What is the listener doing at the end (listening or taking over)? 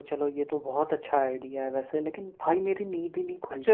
taking over